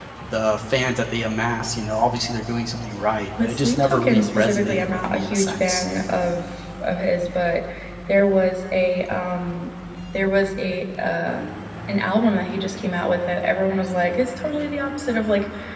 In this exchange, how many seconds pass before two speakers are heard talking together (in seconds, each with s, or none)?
3.4 s